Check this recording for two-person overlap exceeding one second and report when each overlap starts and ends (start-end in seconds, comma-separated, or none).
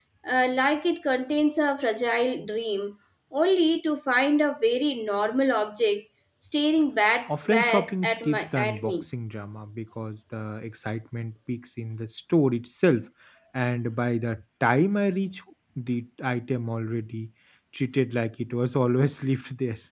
7.3-9.0